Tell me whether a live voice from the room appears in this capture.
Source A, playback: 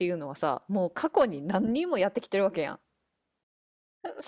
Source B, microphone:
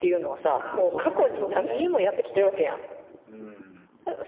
Yes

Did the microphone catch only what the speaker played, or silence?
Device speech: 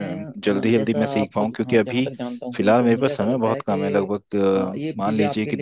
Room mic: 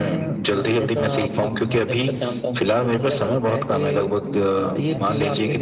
No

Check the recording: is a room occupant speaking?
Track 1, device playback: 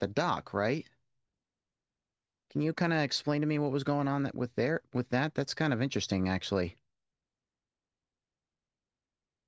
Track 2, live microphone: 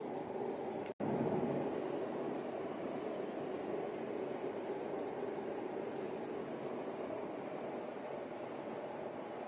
No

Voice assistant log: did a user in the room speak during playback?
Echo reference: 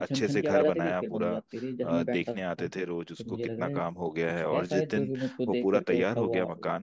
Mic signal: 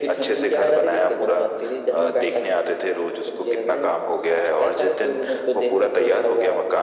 No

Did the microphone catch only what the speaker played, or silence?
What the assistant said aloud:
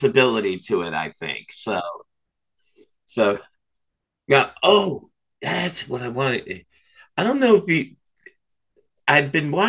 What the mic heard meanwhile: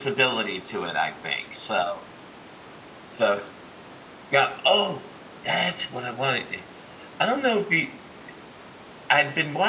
Yes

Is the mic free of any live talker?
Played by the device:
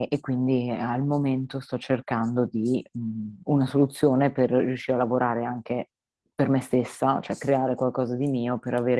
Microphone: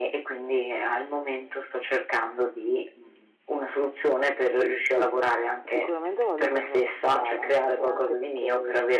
No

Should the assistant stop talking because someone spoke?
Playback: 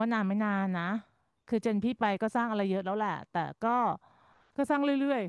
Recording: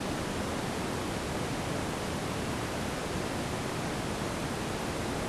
No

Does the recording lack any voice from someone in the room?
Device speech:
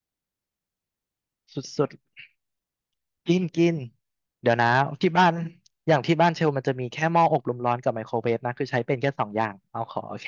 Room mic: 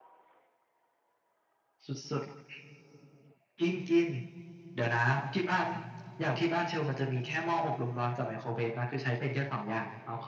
Yes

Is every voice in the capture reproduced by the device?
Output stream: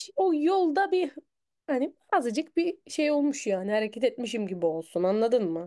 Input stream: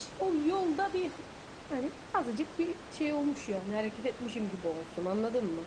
Yes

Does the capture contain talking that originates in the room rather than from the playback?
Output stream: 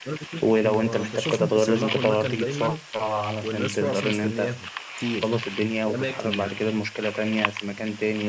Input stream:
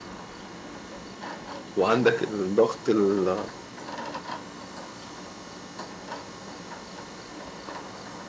Yes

